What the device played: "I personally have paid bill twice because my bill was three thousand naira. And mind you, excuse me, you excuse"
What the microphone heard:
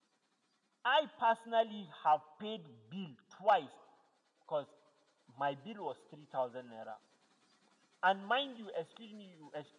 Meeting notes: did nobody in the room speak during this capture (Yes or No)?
Yes